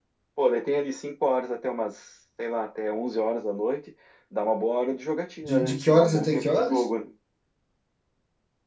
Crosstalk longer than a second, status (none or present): present